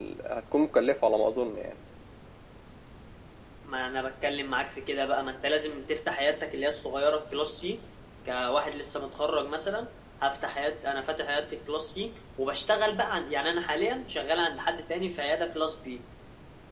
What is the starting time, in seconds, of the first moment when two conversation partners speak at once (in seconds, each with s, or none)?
none